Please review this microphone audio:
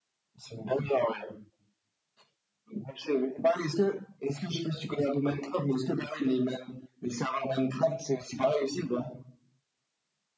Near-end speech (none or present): none